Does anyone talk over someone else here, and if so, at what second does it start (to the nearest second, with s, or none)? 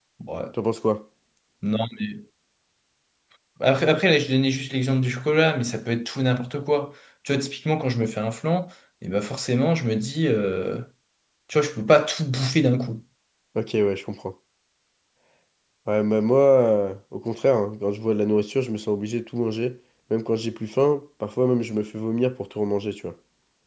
none